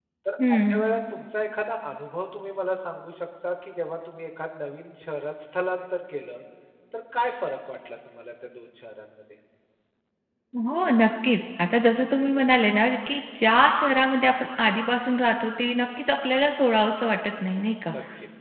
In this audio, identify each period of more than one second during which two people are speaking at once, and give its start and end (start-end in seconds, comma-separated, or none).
none